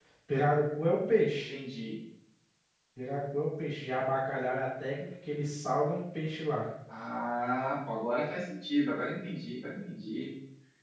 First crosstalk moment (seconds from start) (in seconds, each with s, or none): none